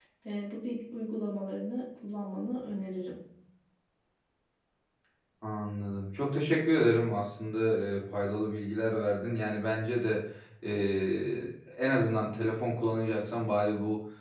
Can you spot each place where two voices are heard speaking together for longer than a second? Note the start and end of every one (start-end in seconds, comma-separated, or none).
none